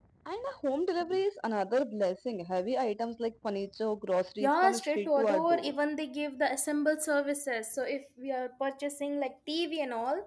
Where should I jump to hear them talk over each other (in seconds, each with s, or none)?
4.4 s